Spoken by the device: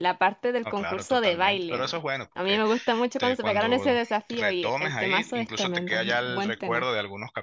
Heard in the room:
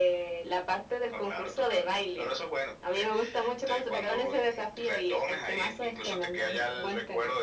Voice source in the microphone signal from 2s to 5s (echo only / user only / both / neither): echo only